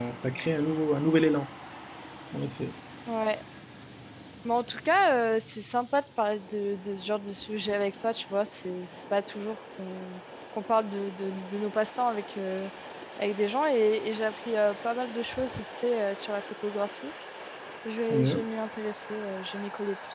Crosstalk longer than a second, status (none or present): none